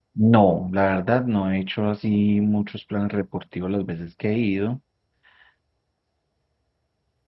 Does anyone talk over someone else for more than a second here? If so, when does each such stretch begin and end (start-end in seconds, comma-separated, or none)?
none